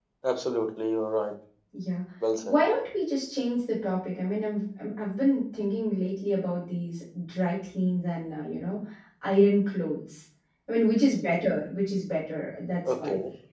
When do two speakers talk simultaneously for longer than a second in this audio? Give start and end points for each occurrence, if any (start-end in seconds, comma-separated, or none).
none